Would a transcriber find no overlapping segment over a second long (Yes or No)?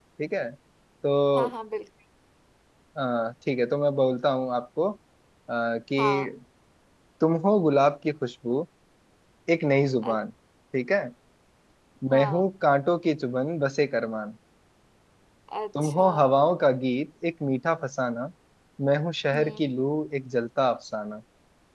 Yes